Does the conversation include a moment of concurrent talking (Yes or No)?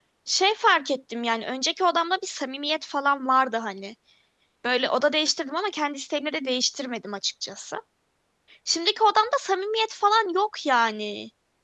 No